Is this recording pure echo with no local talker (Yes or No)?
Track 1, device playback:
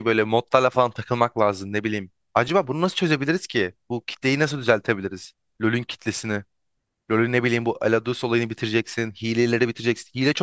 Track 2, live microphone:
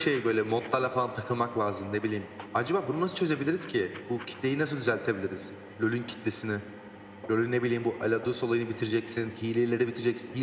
Yes